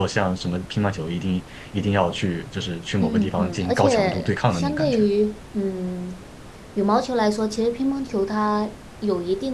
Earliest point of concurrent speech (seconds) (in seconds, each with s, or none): 3.0 s